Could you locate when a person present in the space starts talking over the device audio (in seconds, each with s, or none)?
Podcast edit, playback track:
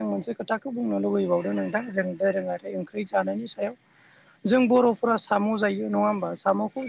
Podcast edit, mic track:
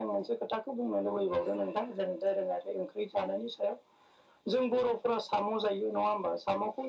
none